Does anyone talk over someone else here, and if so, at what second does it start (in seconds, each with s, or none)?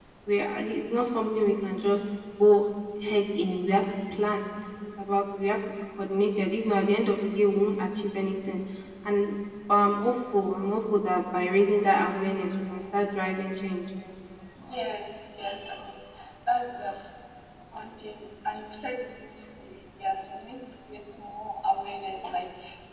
none